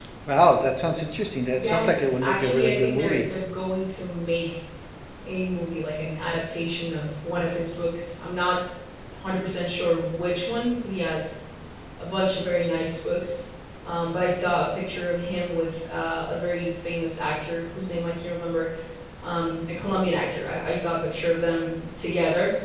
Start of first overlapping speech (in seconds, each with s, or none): 1.5 s